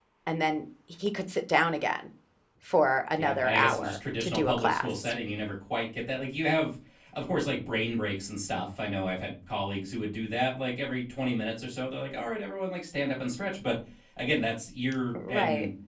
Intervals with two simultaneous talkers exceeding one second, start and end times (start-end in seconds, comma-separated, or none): 3.2-5.1